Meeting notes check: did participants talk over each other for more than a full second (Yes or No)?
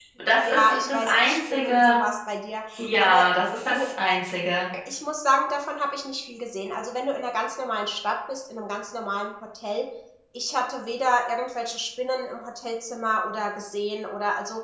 Yes